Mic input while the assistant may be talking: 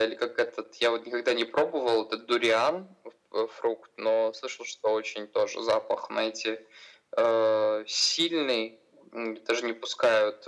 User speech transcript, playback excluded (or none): none